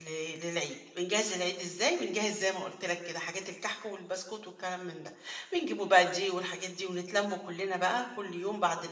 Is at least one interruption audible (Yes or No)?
No